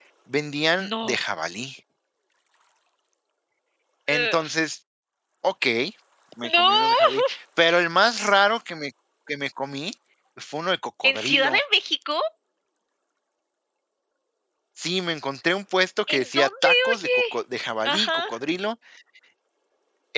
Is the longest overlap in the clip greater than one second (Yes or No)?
Yes